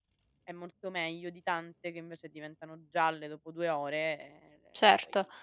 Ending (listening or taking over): taking over